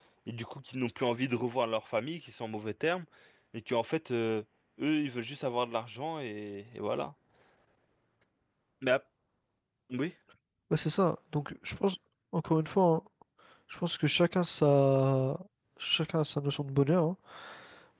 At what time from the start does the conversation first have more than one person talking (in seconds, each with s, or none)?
none